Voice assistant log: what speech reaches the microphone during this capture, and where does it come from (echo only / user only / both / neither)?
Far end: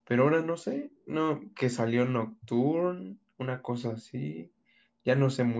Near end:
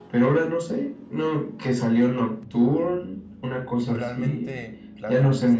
both